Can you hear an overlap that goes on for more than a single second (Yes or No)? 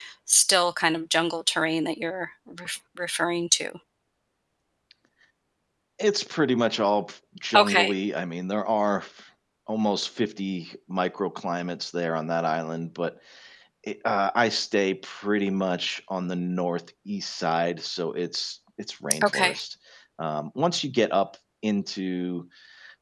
No